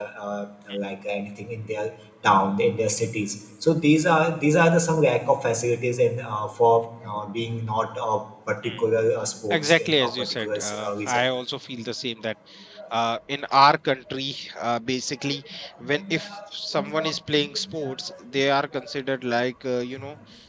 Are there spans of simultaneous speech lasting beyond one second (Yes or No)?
Yes